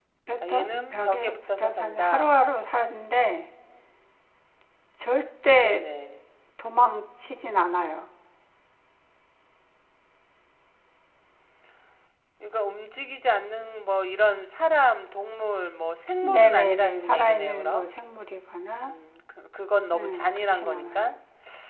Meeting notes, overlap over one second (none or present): present